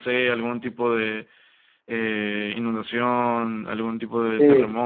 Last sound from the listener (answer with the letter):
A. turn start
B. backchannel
A